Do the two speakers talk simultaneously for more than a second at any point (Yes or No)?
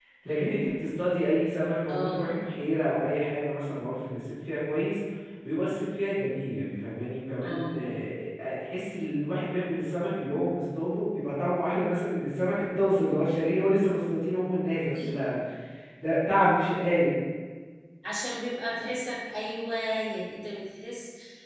No